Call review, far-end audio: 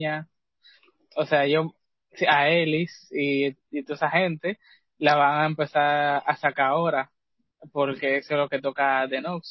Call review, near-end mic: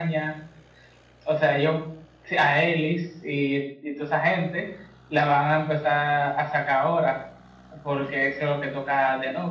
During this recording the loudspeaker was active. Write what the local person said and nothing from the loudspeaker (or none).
none